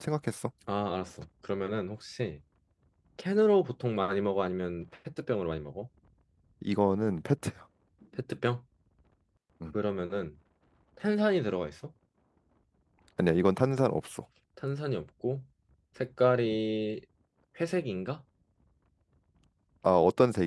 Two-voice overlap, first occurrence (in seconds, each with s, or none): none